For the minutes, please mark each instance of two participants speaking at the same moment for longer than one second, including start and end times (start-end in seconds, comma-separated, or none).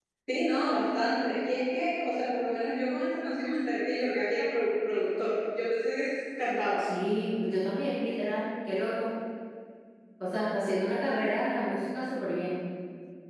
none